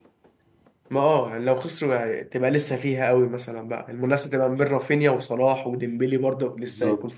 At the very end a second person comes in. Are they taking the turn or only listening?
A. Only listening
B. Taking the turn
B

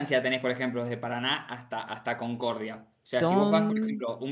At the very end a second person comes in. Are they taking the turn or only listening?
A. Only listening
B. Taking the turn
A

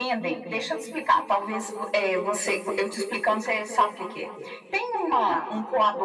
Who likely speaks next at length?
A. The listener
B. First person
B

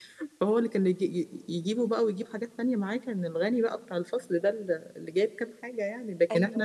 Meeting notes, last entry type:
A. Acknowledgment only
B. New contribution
A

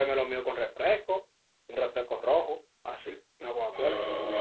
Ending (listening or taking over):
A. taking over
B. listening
A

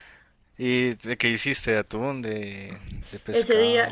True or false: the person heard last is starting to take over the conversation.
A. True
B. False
A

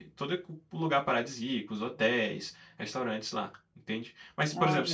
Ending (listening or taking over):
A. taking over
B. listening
B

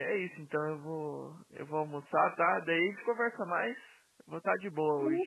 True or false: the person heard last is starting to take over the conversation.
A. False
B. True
B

